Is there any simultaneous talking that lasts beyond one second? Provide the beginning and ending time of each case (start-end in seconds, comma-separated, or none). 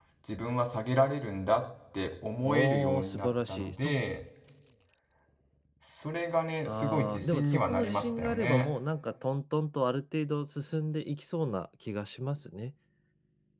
2.5-4.0, 6.7-8.7